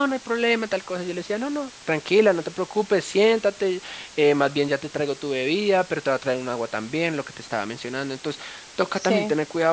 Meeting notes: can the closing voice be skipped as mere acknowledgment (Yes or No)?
Yes